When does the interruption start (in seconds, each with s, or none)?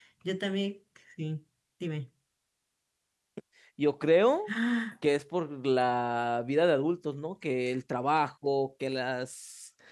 none